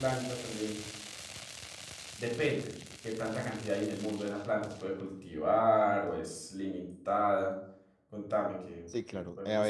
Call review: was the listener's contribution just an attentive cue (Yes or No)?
No